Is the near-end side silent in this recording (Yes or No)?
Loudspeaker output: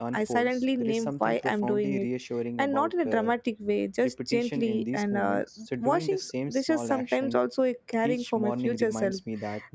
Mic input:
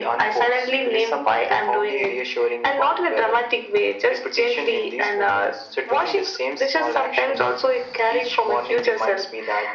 Yes